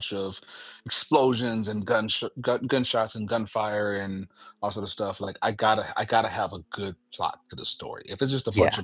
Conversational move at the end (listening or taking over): listening